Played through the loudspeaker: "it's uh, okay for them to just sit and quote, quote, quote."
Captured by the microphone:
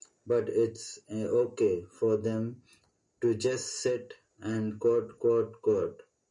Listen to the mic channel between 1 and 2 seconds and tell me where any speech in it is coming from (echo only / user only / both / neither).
echo only